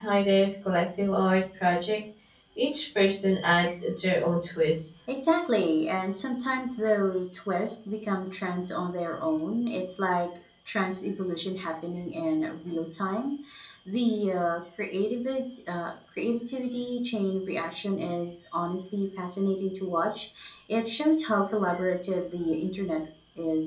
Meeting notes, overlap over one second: none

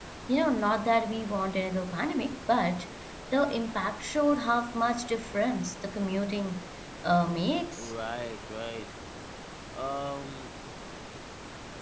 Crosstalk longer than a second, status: none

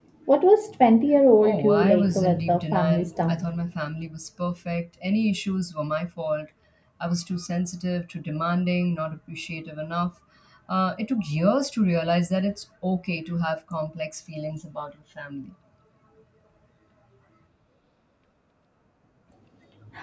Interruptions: present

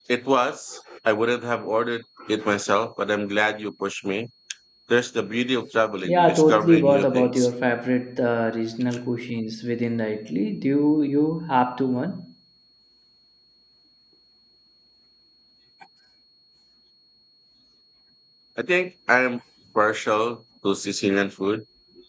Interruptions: present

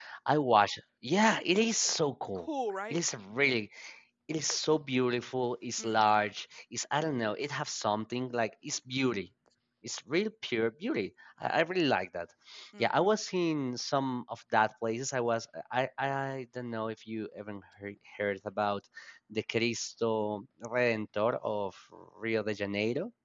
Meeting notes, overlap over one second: none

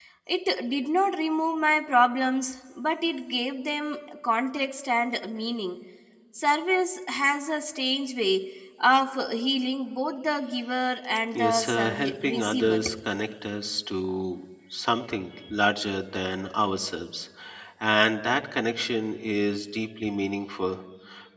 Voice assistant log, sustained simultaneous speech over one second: present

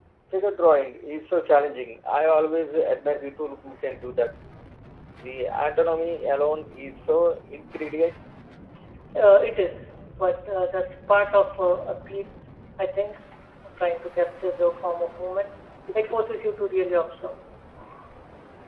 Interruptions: none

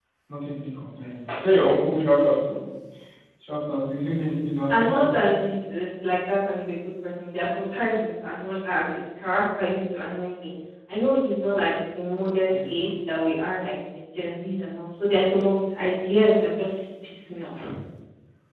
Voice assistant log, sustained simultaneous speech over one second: none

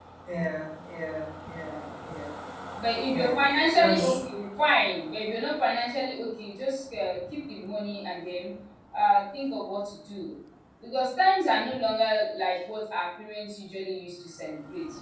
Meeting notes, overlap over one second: none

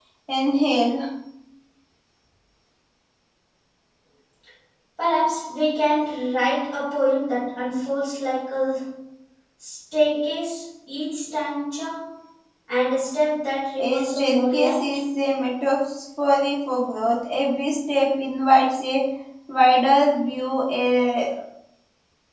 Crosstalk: present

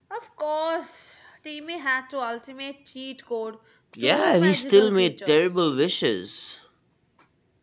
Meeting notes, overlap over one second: present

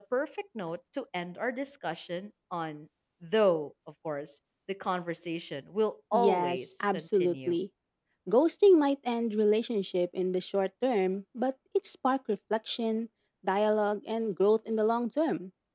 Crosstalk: present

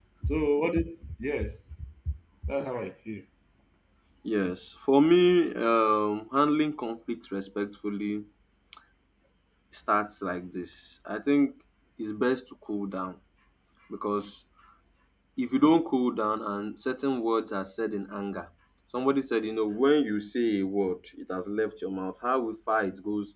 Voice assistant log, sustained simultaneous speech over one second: none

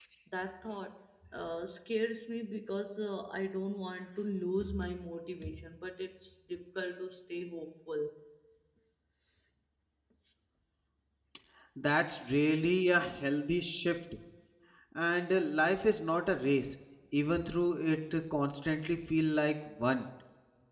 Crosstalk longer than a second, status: none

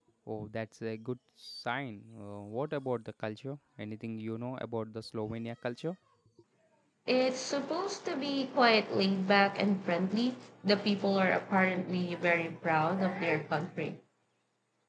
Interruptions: none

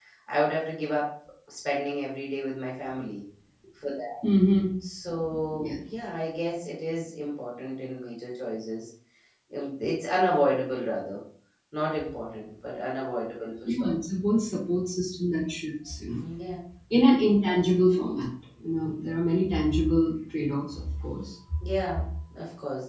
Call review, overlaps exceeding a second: none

